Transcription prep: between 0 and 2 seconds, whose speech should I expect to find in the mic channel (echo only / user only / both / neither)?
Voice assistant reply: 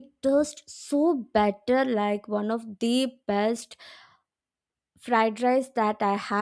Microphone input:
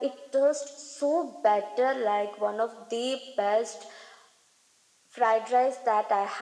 echo only